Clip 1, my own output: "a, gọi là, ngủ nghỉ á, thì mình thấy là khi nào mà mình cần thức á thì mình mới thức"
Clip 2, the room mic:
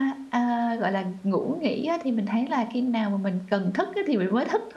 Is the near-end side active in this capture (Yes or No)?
No